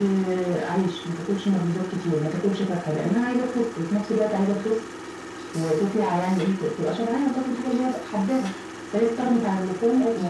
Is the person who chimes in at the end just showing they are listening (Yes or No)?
Yes